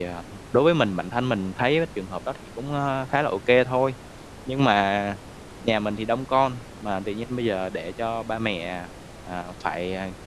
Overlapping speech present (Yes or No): No